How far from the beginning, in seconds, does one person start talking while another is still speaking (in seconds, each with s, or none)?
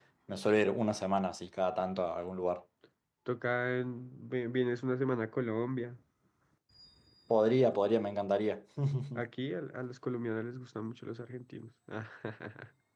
none